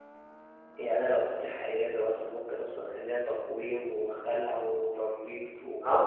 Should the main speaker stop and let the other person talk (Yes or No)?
Yes